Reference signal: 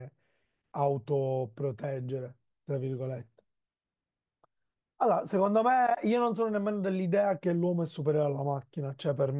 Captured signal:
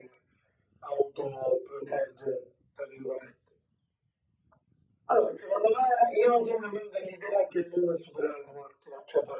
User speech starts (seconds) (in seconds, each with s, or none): none